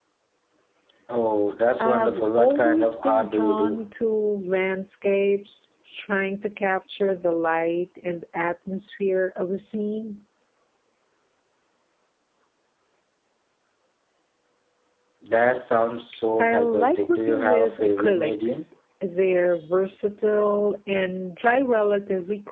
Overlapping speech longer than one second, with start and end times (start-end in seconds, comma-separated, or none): 1.8-3.9, 16.4-18.6